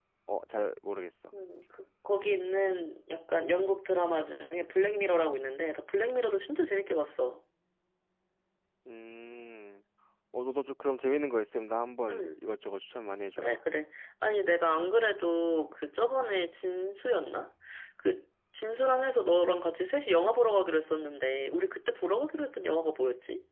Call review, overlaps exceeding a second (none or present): none